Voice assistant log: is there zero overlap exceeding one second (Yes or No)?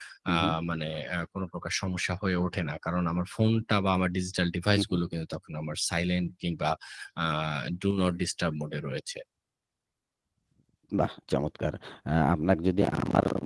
Yes